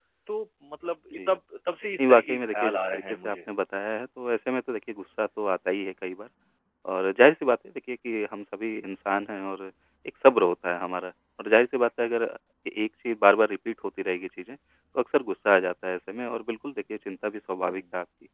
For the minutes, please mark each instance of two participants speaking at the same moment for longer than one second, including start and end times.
2.0-3.4

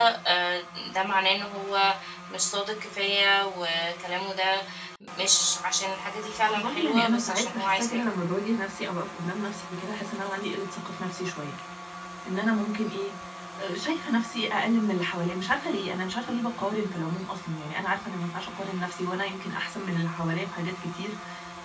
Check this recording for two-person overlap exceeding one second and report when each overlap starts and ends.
6.5-8.1

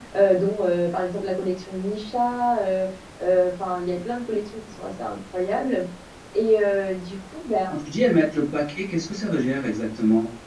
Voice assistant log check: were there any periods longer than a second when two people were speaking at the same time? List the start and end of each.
none

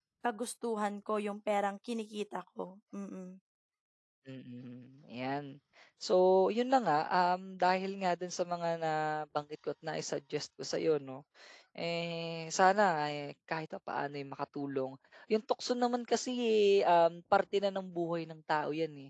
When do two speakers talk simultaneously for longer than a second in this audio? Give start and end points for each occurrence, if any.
none

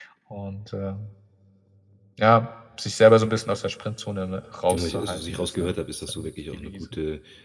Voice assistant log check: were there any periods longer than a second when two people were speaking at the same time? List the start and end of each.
4.7-6.8

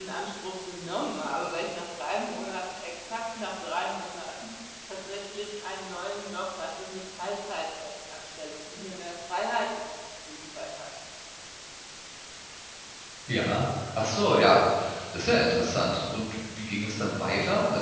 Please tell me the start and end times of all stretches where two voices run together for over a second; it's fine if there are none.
none

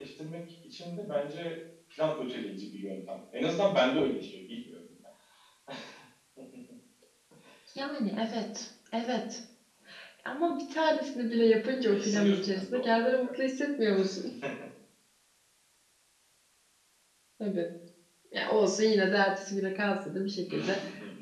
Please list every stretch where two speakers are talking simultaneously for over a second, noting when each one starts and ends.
11.9-13.4

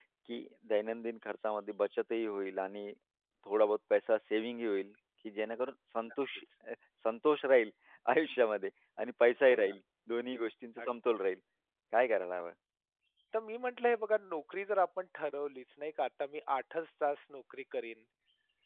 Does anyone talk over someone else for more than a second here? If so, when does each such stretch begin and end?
none

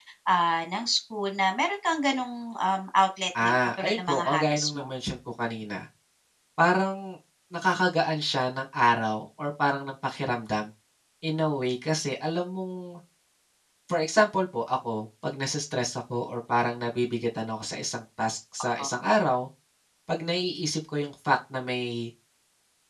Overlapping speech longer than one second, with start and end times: 3.4-4.9

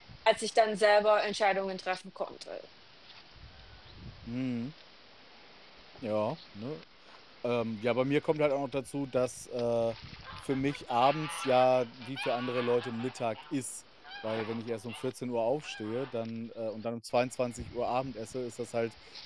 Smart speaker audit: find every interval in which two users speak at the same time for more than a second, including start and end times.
none

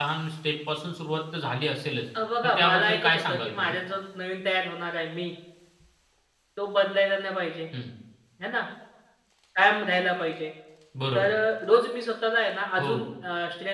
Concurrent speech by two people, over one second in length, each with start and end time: 2.4-3.8

